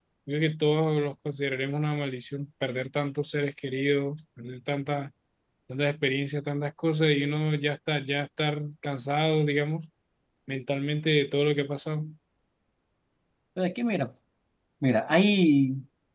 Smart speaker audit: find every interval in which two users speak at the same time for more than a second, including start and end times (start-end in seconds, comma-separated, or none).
none